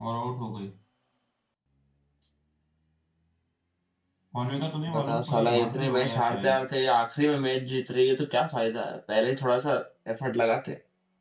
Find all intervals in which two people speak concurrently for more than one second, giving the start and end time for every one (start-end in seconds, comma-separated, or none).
4.9-6.6